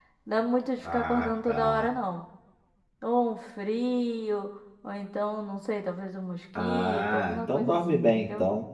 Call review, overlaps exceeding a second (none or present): present